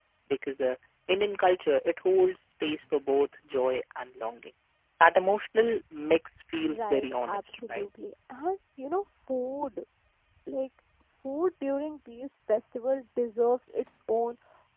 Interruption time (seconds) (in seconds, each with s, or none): 6.7 s